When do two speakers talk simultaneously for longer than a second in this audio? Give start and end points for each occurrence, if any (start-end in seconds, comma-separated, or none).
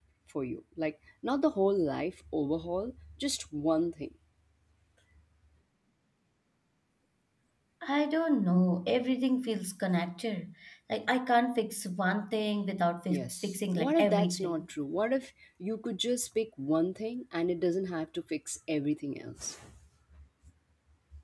13.1-14.6